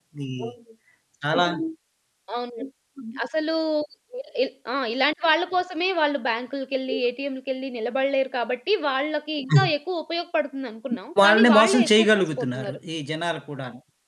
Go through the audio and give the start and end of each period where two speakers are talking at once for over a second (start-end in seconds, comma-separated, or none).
11.2-12.8